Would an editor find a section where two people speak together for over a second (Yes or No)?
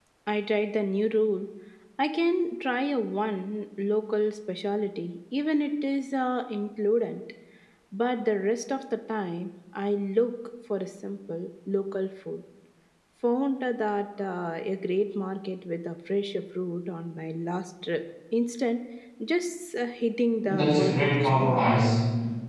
Yes